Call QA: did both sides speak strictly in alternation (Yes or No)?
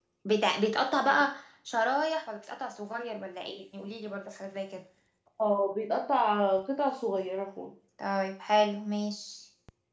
Yes